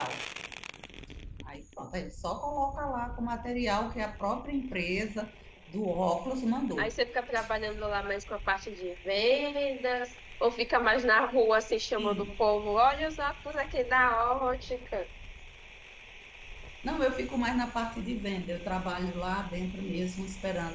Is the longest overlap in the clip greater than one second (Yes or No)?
No